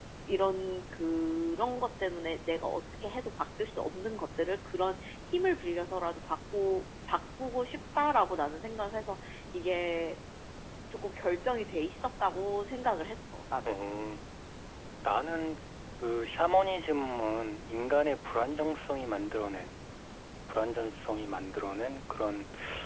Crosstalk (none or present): none